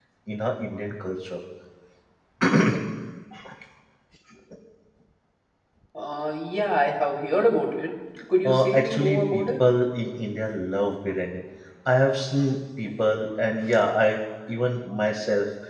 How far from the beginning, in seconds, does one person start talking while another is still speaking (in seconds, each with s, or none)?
8.4 s